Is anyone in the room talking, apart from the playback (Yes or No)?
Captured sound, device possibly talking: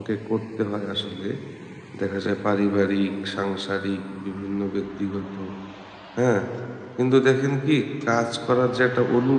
Yes